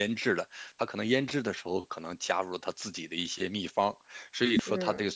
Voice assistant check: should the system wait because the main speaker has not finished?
Yes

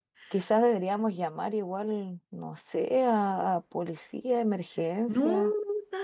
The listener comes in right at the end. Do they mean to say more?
Yes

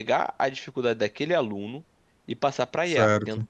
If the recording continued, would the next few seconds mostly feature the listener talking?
No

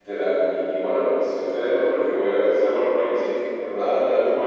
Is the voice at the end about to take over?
No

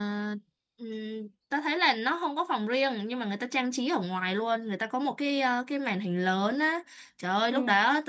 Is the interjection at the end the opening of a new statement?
No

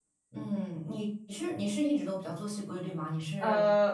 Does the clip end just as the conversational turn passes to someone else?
Yes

